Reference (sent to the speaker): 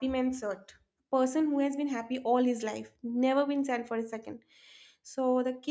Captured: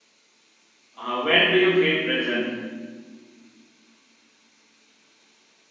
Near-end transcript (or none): uh, when do you feel present